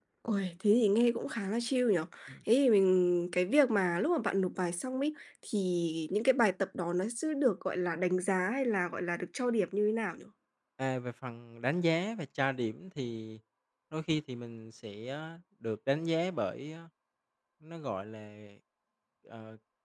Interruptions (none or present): none